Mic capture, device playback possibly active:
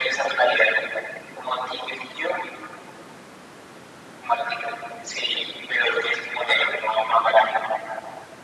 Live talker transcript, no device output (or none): none